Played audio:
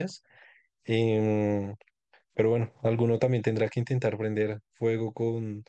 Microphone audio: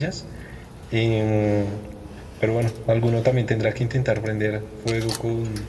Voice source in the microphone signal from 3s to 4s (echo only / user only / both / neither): echo only